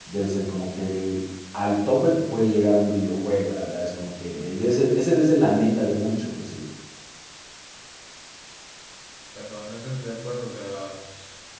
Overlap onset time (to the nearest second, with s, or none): none